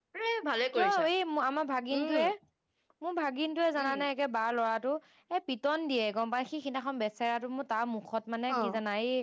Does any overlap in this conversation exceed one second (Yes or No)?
No